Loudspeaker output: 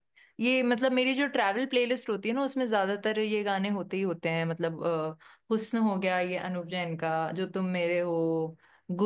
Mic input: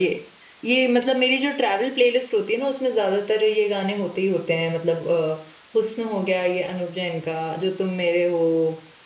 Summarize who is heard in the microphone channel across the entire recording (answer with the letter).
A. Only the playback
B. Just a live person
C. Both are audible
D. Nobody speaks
A